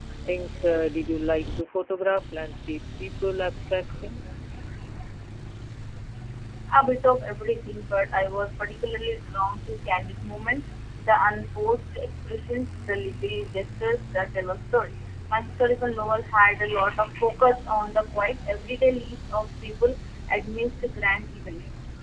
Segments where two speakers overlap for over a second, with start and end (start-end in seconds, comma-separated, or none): none